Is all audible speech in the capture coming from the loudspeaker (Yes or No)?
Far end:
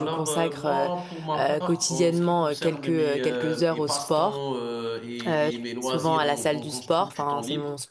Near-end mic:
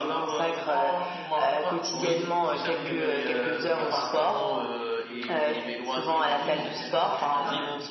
No